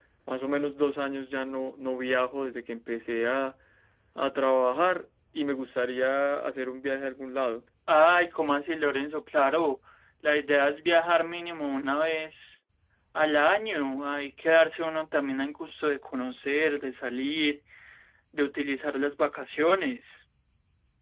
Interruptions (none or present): none